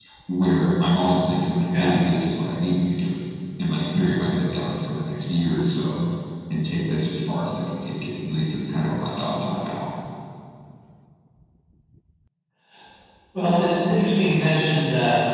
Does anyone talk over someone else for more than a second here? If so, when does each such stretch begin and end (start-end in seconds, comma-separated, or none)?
none